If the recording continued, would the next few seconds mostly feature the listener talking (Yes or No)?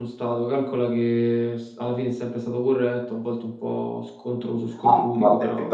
Yes